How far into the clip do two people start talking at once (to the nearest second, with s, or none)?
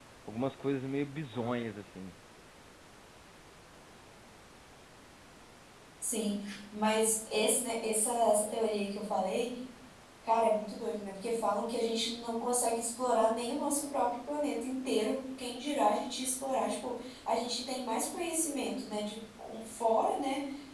none